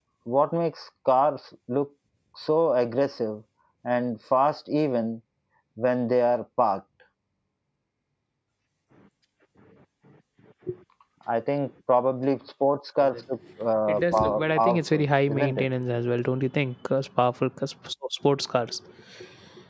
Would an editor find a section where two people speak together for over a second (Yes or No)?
Yes